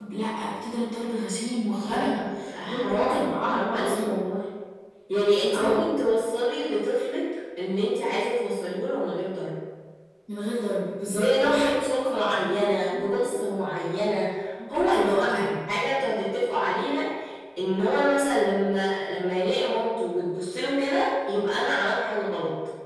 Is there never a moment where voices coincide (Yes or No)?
No